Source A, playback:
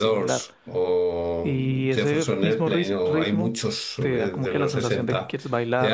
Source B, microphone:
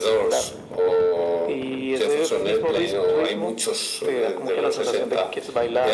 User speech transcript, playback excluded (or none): none